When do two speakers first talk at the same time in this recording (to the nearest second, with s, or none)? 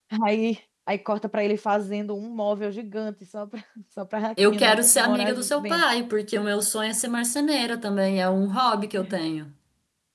4 s